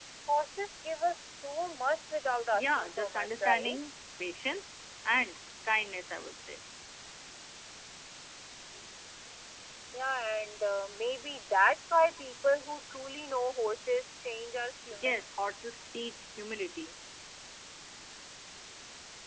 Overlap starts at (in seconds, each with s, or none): 2.5 s